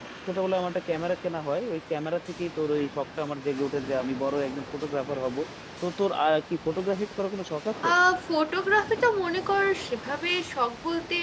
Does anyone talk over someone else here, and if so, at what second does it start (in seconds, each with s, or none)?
none